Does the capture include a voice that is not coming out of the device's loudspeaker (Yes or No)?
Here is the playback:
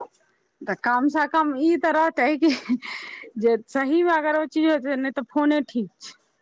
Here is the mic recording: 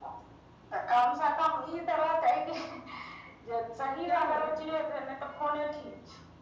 Yes